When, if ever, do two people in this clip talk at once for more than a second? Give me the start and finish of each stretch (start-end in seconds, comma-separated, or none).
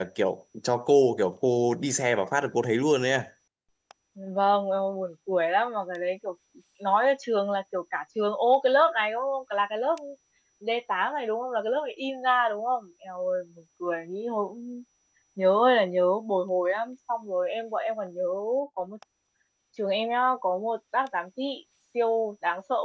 none